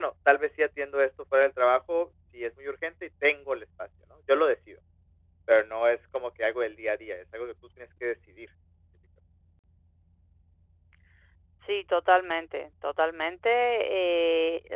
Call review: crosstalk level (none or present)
none